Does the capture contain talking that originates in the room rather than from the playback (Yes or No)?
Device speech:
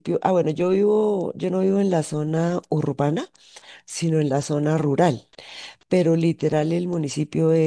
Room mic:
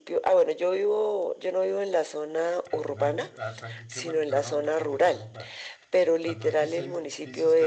Yes